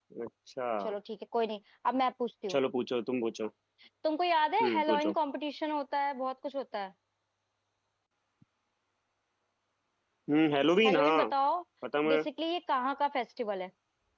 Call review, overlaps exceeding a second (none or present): none